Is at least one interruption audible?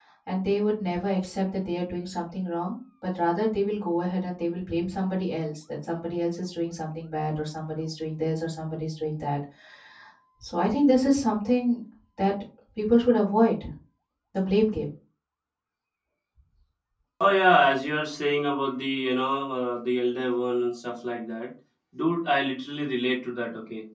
No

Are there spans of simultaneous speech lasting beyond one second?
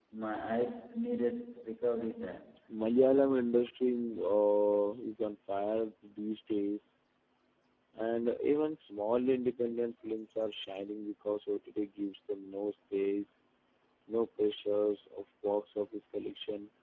No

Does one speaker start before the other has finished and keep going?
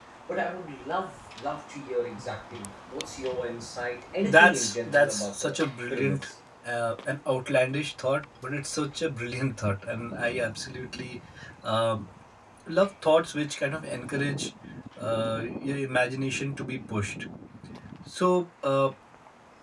Yes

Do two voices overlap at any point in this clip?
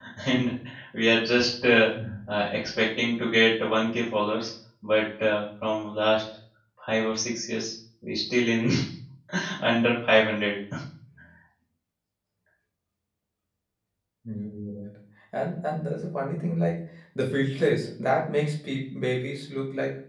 No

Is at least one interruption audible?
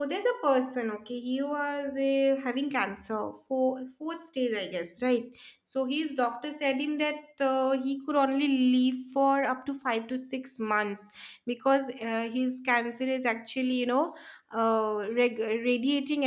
No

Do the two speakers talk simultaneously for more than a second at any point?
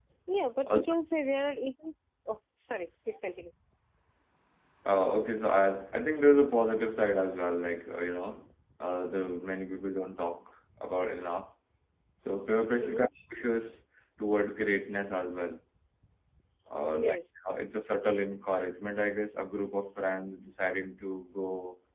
No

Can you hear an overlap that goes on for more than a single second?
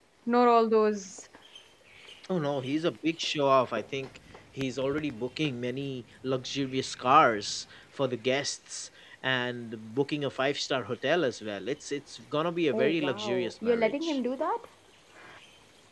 Yes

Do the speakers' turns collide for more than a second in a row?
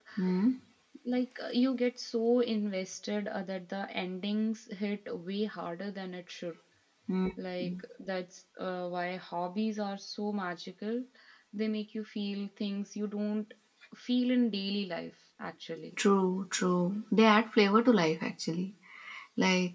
No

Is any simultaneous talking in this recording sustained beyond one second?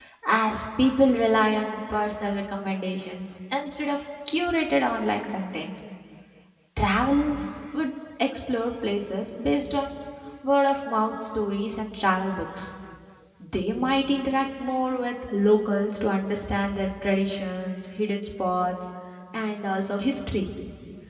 No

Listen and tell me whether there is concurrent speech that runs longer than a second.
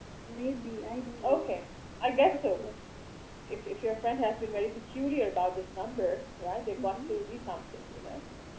No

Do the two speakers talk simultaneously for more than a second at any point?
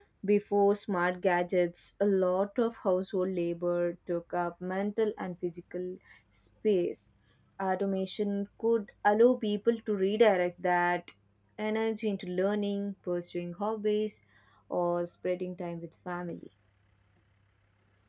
No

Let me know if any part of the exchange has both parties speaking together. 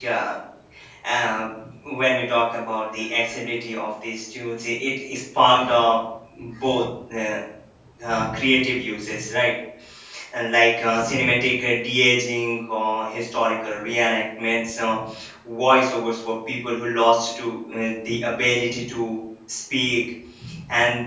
No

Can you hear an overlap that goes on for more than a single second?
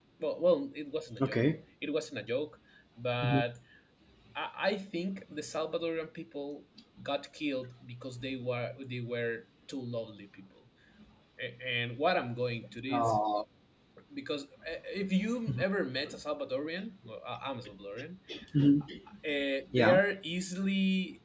No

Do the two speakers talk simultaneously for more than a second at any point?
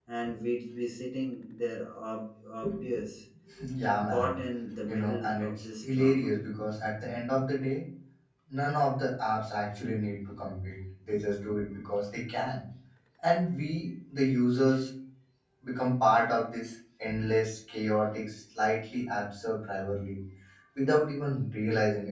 Yes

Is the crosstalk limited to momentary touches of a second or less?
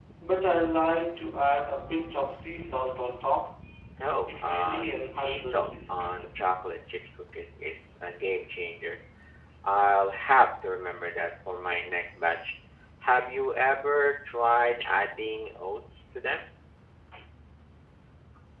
No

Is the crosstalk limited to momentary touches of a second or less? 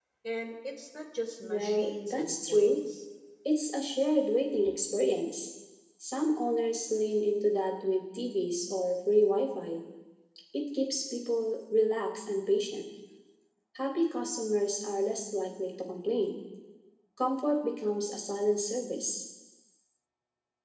No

